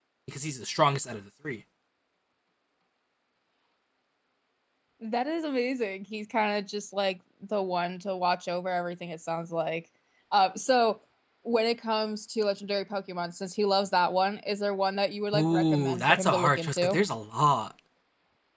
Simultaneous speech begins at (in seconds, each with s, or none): 15.3 s